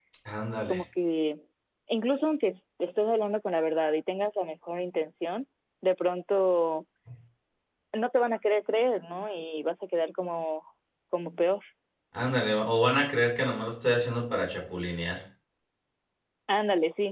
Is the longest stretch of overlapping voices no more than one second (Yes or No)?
Yes